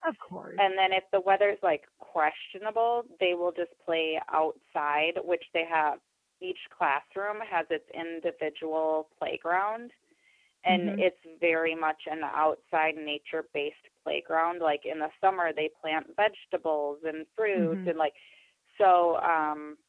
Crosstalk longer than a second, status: none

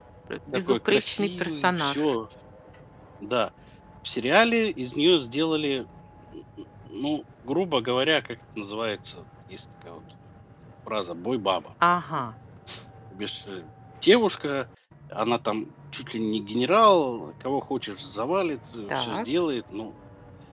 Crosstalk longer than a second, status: present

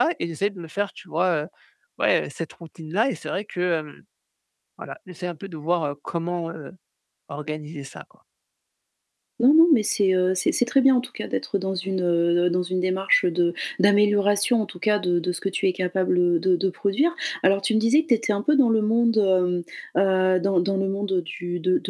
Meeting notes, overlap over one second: none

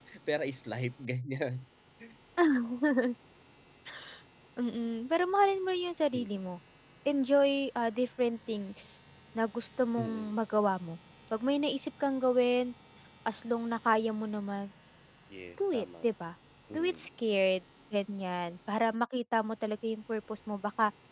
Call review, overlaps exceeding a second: none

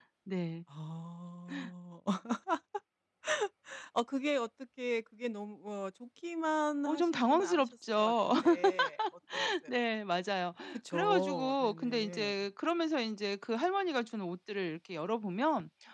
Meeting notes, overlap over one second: present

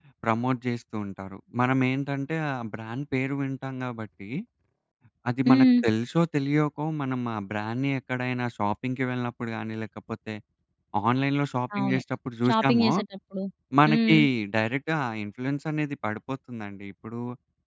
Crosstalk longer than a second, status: none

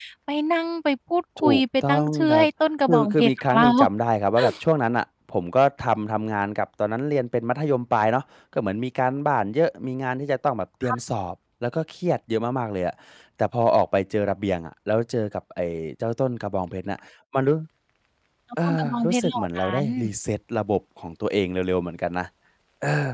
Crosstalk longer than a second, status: present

